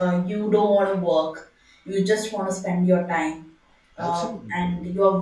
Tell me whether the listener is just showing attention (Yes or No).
Yes